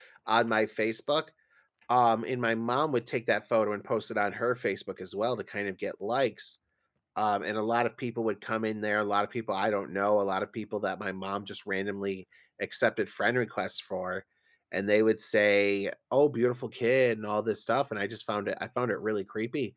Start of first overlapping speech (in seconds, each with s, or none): none